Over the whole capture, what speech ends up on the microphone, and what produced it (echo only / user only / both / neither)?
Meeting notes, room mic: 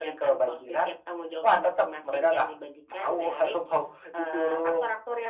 echo only